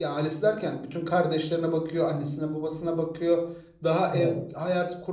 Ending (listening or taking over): listening